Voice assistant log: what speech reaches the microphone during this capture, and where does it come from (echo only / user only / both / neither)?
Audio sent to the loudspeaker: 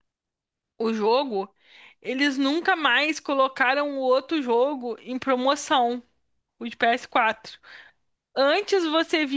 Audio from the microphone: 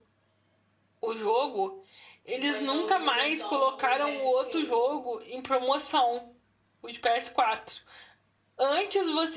both